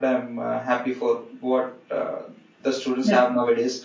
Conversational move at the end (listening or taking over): listening